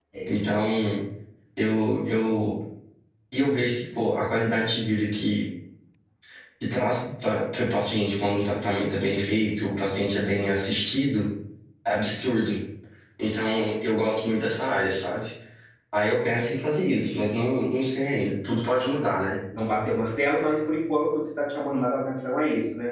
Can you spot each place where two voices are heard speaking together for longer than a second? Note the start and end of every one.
none

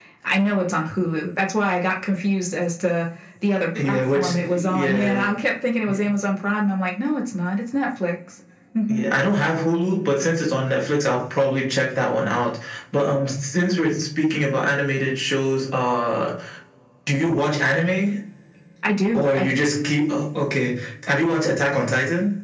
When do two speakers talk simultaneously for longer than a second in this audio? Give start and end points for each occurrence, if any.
3.8-5.3

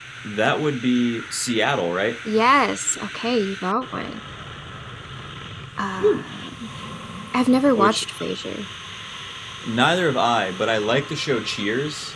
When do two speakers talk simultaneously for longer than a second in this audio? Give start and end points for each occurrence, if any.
none

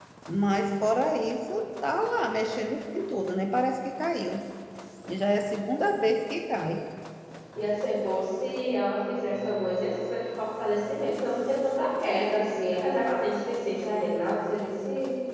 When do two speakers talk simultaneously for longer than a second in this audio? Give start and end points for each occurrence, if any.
none

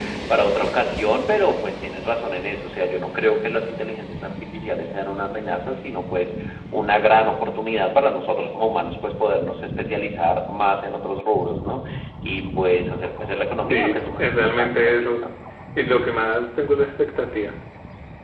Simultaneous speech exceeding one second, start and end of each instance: 13.7-15.2

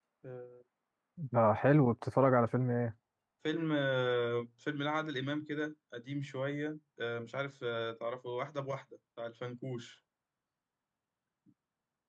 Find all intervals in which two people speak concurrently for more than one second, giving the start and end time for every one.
none

